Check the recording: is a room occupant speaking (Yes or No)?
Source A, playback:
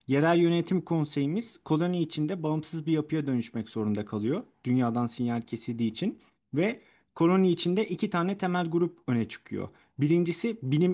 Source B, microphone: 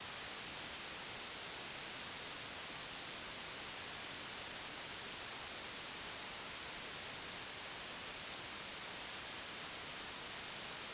No